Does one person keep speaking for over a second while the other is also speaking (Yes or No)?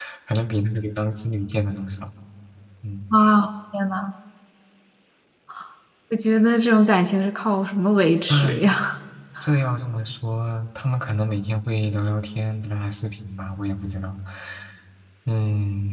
No